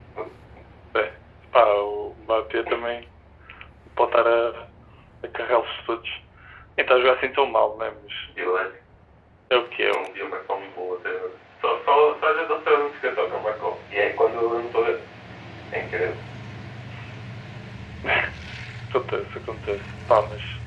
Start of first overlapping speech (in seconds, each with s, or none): none